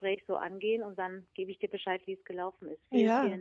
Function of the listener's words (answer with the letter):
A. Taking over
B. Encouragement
A